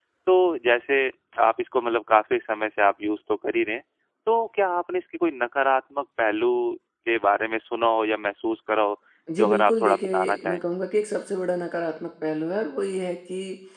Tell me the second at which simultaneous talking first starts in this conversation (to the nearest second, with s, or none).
9 s